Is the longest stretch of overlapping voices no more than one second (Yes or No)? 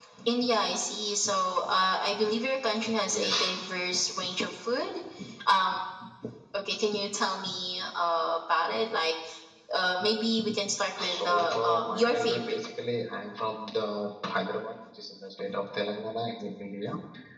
No